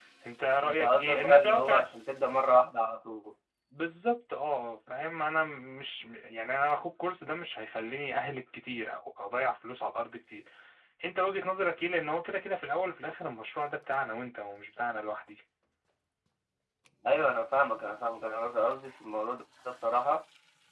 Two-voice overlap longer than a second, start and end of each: 0.6-1.9

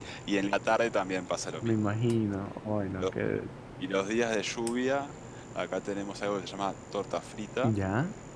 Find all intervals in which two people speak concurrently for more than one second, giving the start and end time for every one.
none

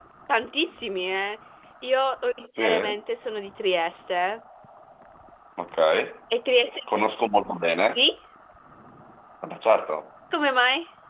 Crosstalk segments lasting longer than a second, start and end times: none

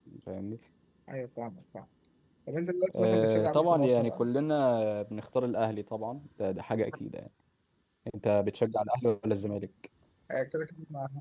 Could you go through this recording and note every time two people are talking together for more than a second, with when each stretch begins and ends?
3.0-4.2

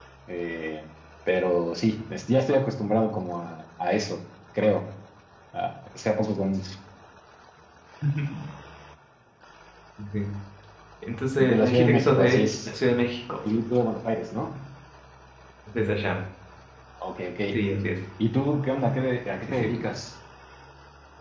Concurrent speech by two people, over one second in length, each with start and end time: 11.4-12.7

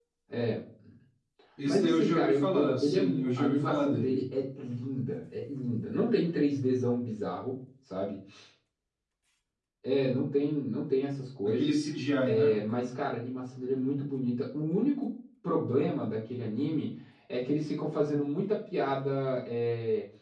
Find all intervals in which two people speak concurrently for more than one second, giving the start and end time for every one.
1.7-4.2

